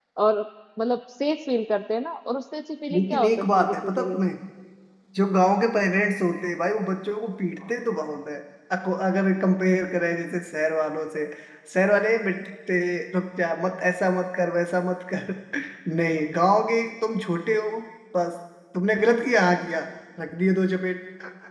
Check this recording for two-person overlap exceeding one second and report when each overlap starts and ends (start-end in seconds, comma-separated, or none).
2.9-4.2